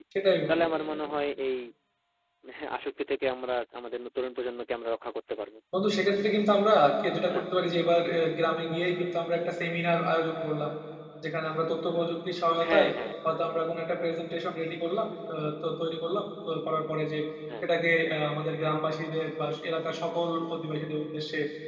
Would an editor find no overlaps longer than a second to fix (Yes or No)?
Yes